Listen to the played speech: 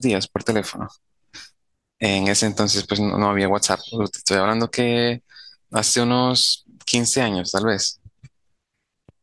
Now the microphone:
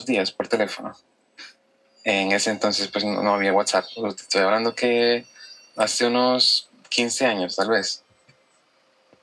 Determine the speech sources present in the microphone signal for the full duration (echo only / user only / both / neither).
echo only